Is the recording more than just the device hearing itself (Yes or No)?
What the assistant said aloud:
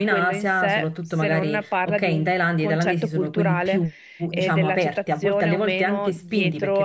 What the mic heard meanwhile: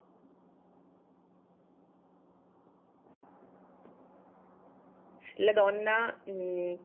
Yes